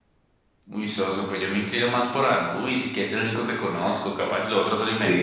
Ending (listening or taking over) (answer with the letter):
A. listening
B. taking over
B